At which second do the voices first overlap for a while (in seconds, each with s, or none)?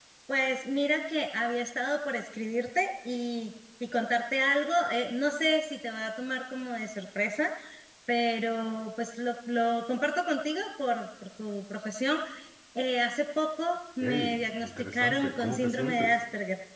14.0 s